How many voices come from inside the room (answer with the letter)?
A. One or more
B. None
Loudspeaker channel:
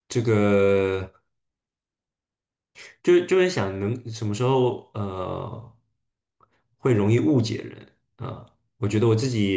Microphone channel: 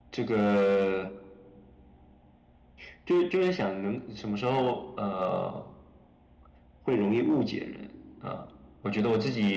B